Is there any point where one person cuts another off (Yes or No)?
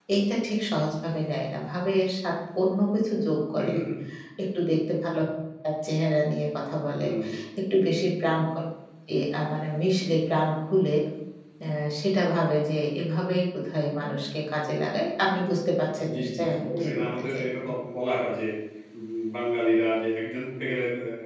Yes